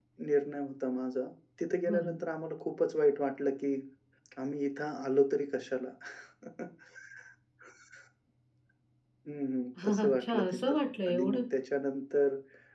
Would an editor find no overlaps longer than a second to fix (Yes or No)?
No